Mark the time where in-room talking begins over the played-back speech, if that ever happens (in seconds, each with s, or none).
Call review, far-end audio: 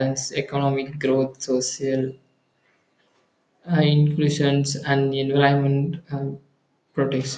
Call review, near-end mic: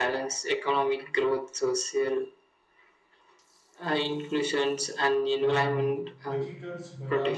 5.3 s